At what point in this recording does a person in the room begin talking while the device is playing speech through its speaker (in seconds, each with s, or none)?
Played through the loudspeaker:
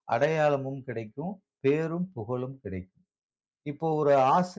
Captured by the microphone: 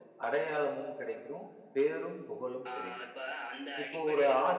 2.7 s